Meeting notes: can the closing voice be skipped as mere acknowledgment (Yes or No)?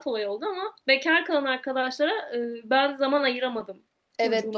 No